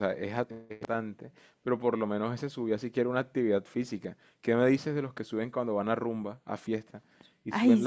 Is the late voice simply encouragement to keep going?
Yes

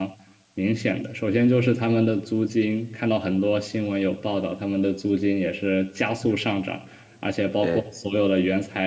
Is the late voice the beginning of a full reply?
No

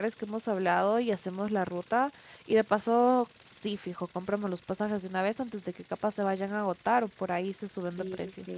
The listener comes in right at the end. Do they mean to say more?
Yes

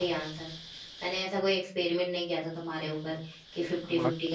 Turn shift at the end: No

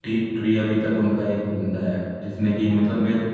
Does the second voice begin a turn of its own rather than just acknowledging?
No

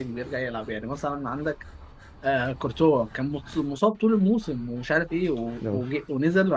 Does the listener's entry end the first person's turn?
No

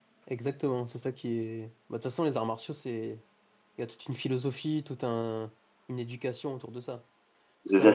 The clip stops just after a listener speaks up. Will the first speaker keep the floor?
No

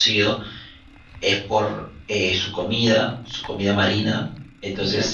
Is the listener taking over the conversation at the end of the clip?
No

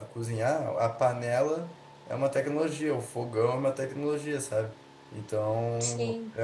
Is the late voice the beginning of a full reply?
No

